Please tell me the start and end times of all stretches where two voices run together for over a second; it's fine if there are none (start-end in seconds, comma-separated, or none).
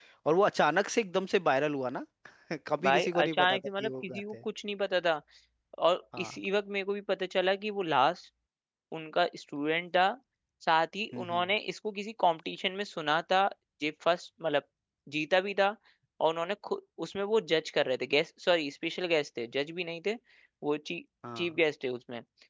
2.8-4.4